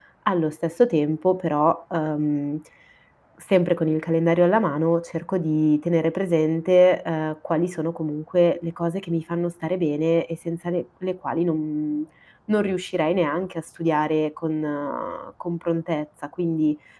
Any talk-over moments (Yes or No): No